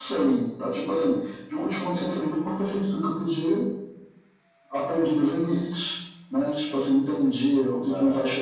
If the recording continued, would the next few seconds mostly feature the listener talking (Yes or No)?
No